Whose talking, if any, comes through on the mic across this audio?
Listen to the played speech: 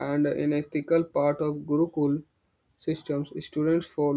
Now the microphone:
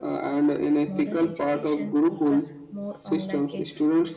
both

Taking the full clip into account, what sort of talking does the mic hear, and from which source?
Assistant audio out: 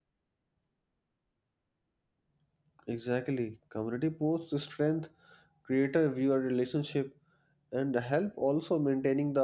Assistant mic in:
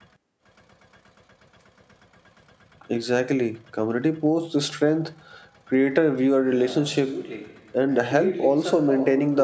both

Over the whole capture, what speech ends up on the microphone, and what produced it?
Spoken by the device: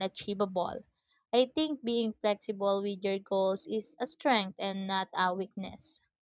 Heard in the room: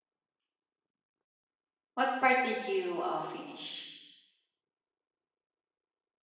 user only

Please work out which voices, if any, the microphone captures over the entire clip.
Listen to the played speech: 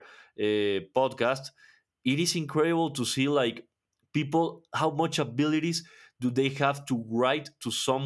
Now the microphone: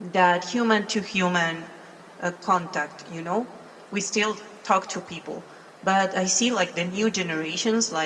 user only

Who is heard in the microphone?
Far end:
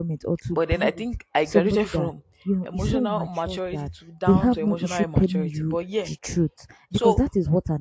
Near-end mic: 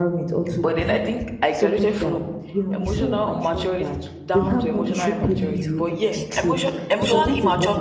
both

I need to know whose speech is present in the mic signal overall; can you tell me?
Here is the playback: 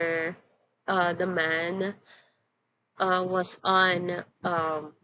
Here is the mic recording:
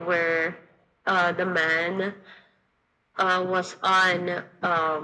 echo only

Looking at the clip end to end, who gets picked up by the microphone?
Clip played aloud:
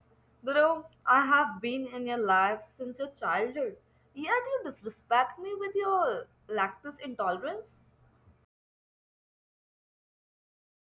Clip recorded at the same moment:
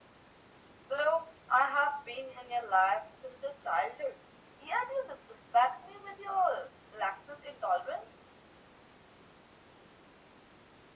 echo only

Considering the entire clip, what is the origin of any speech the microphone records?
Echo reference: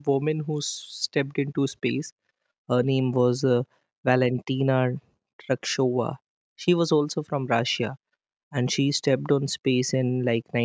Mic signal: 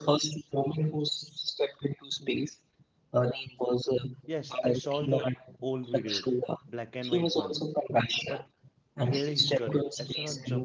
both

